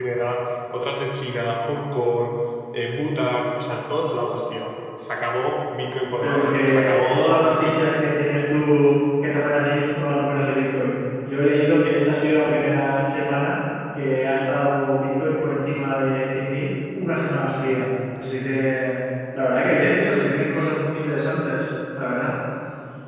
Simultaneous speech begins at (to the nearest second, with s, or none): 6 s